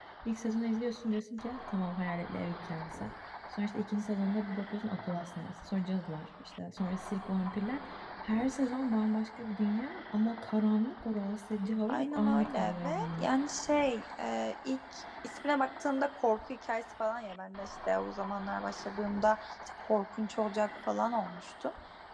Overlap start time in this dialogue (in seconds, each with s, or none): 11.9 s